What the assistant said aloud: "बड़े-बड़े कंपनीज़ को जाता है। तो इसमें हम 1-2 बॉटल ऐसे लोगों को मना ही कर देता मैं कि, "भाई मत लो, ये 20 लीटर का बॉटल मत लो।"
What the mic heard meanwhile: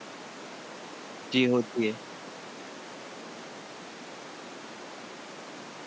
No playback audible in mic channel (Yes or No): Yes